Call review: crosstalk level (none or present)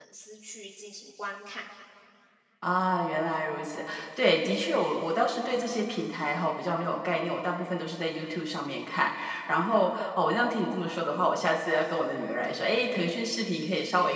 none